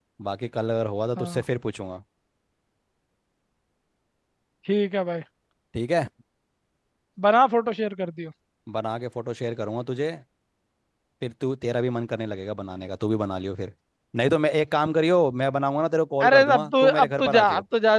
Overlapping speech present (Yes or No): Yes